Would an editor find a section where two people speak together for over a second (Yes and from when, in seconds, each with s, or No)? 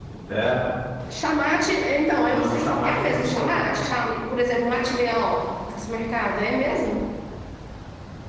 Yes, from 2.2 s